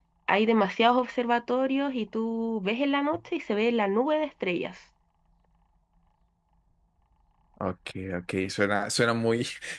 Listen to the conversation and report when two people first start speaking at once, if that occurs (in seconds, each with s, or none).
none